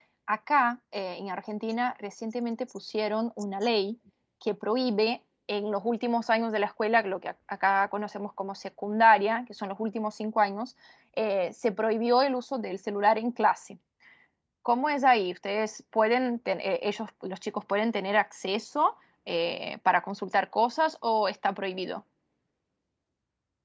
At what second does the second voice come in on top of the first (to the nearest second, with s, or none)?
none